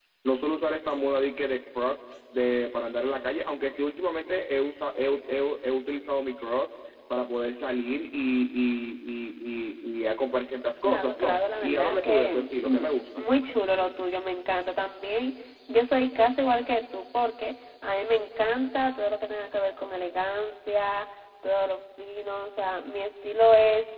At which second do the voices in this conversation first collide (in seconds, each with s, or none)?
10.8 s